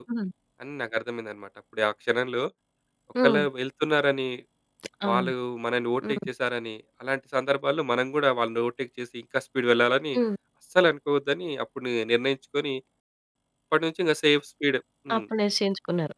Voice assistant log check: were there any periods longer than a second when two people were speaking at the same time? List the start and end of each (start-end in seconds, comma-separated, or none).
none